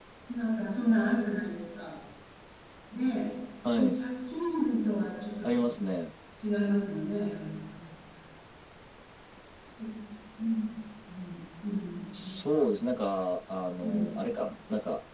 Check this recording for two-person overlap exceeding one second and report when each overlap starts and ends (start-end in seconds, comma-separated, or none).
none